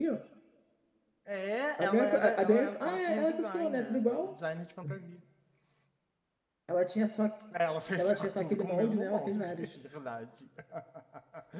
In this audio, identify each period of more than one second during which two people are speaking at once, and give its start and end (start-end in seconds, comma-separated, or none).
1.8-4.3, 8.0-9.8